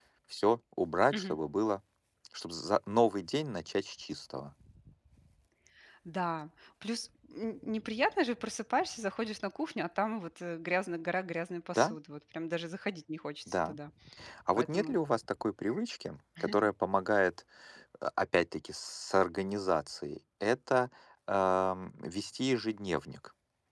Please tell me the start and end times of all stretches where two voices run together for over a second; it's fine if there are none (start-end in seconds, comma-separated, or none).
none